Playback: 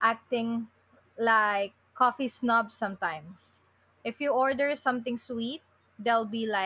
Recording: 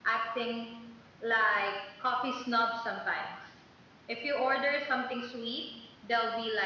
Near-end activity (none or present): none